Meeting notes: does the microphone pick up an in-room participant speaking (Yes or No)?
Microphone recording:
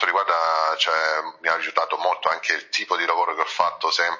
No